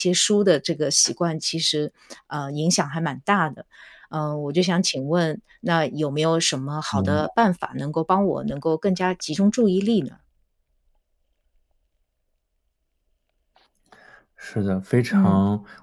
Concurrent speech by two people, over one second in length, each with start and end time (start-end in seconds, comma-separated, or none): none